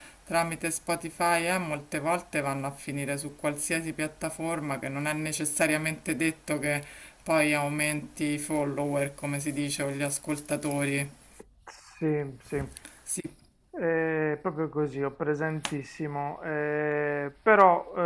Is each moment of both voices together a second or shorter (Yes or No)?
Yes